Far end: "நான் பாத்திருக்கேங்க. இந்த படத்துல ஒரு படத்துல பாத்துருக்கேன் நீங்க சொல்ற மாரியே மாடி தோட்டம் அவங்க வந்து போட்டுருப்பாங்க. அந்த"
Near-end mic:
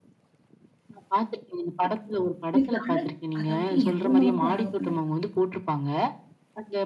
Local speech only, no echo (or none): எனக்கு இந்த அழகு அதாவது என் ரூம மட்டும் அழகா பண்ணக்கூடாது.